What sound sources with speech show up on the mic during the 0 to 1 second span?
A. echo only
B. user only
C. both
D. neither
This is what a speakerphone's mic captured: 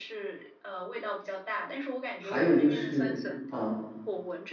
A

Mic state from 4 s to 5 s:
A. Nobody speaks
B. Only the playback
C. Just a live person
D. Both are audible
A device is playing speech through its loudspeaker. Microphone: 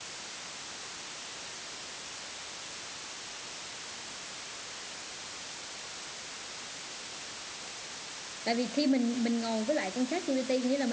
A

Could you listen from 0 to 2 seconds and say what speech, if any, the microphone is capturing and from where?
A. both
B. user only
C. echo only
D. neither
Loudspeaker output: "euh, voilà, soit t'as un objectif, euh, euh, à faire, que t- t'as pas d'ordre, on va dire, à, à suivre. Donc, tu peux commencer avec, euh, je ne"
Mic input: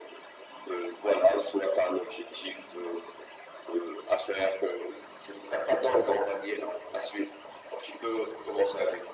C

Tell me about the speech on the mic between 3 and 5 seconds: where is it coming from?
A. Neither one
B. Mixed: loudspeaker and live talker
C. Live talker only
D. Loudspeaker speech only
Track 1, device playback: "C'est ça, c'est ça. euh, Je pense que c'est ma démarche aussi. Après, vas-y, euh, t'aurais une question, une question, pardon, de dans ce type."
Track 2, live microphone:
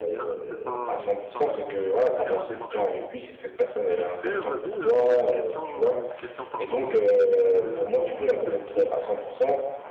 B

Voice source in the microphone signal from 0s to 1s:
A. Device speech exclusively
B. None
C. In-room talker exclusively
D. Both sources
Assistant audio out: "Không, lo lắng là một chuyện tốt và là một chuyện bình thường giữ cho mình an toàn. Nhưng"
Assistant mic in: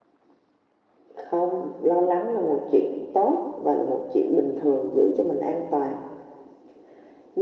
B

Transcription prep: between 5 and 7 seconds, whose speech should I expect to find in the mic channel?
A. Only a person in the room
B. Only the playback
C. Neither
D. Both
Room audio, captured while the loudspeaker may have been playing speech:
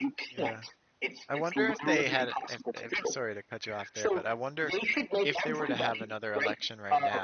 D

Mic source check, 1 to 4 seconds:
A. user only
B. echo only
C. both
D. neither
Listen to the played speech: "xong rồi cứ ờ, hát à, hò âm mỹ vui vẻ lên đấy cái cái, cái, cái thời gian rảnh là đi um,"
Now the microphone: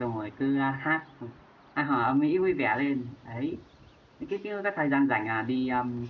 B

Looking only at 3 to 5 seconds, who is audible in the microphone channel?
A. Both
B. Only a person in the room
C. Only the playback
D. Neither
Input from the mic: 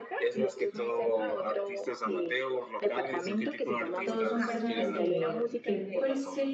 A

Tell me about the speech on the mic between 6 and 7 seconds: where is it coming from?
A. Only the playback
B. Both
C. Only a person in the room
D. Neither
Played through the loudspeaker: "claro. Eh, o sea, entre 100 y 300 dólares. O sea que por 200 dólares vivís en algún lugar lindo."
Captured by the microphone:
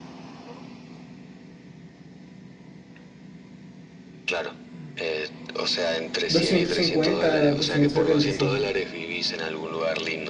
B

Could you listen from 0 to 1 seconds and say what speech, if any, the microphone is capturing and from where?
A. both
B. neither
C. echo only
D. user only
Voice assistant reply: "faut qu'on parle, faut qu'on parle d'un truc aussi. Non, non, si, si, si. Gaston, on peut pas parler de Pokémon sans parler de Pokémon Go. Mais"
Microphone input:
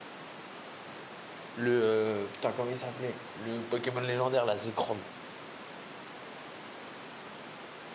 B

